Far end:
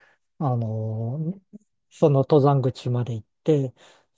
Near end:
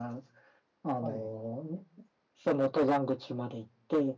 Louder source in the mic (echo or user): echo